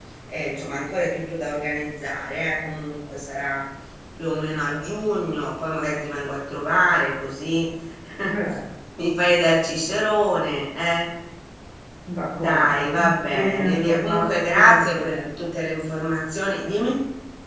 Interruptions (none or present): present